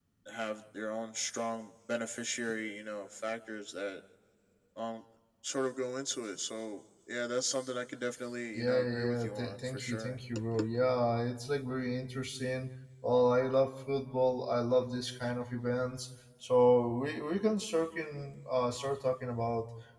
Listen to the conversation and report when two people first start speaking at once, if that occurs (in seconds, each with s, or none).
8.6 s